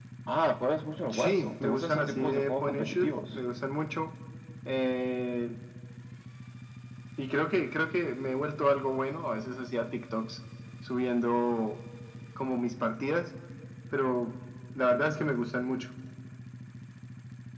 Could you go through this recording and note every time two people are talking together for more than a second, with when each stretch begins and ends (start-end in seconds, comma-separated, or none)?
1.1-3.4